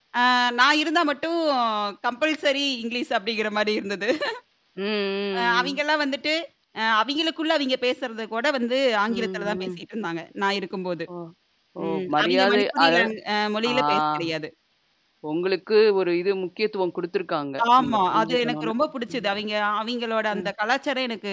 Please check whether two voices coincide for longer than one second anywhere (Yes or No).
Yes